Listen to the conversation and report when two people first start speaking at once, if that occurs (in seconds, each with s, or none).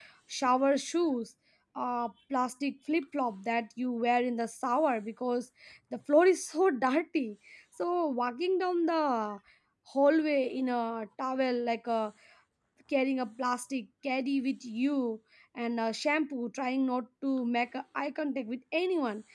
none